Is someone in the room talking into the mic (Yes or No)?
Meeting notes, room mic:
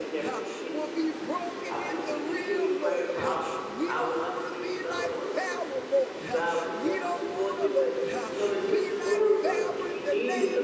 Yes